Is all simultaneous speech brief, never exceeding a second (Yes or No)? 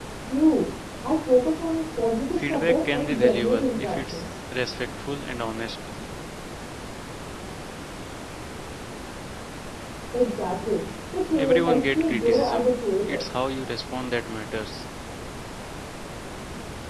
No